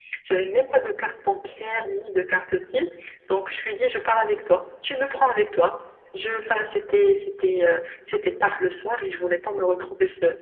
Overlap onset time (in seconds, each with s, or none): none